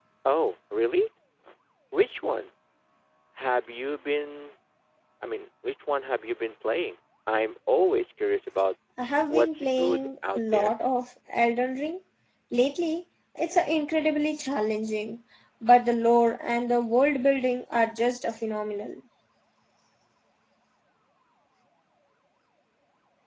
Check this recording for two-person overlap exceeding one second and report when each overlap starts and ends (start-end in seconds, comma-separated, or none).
9.3-10.7